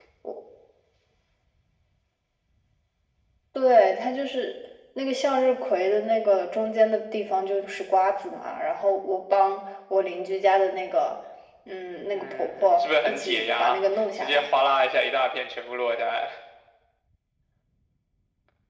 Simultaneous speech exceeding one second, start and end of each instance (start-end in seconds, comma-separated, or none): 12.1-14.5